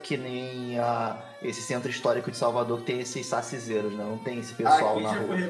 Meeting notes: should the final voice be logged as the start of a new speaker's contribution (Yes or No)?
Yes